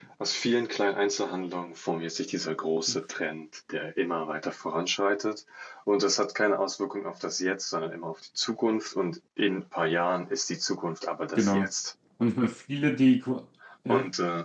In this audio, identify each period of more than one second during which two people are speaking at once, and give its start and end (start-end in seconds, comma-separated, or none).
none